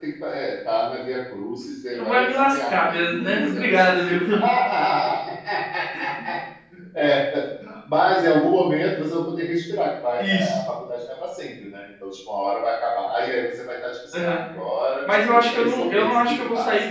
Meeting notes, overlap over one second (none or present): present